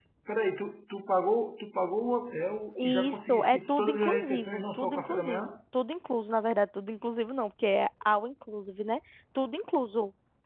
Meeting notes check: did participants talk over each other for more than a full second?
Yes, from 2.8 s

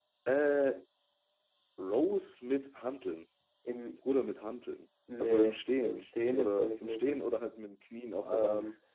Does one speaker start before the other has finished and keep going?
Yes, from 5.2 s

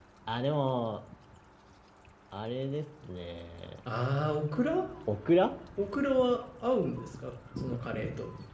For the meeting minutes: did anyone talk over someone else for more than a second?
No

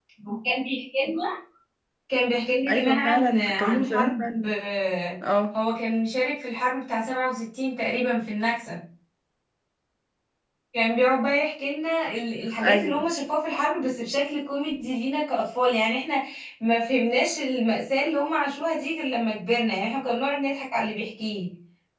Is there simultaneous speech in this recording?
Yes, from 2.7 s

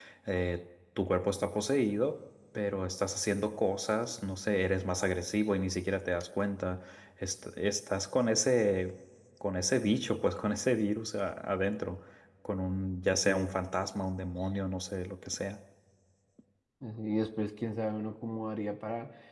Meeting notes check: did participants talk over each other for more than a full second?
No

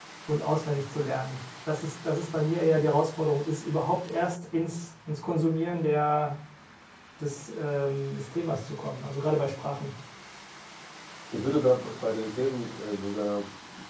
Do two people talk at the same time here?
No

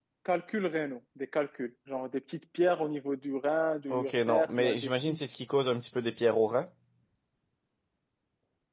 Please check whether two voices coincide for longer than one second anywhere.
Yes, from 3.9 s

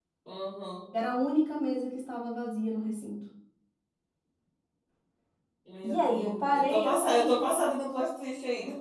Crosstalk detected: Yes, from 5.8 s

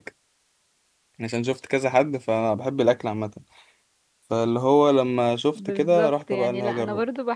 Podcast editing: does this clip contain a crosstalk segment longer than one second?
Yes, from 5.6 s

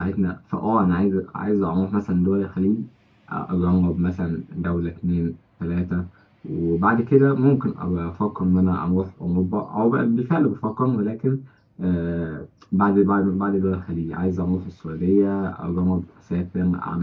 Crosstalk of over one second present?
No

